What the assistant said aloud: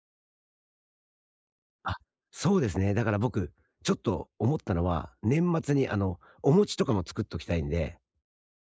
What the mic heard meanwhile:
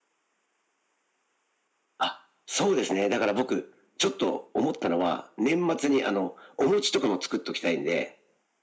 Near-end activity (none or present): none